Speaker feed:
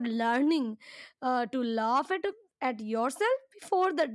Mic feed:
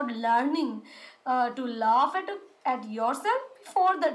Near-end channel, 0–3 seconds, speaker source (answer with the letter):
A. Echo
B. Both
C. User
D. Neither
A